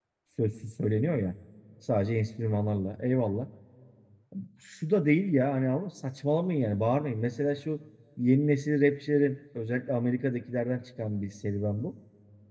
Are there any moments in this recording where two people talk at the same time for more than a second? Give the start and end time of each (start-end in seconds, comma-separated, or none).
none